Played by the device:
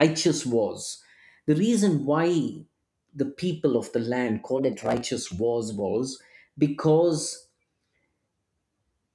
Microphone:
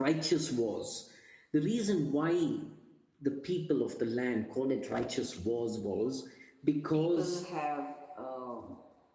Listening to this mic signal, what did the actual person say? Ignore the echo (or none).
people have um,